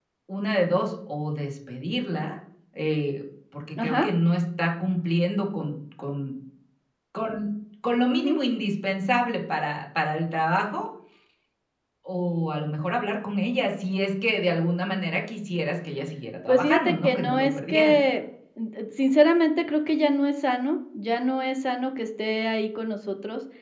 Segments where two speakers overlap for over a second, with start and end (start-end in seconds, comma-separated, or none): 16.5-17.9